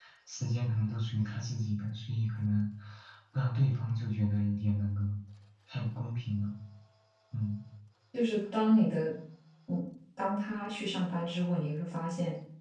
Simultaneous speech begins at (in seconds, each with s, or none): none